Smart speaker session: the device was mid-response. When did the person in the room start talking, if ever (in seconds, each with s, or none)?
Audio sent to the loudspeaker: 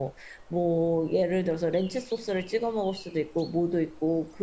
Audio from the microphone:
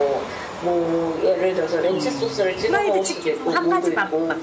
1.9 s